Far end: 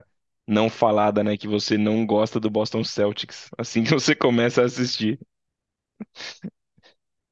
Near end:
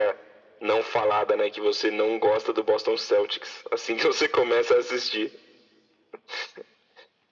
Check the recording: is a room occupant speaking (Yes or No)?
No